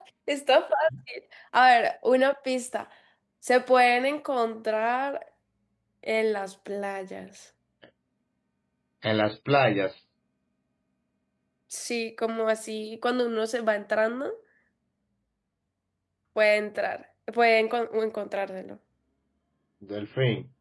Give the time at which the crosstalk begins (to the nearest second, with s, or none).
none